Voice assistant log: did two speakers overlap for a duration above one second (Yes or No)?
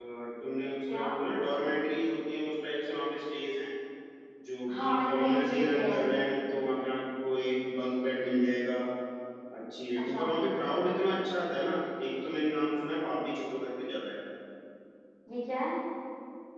Yes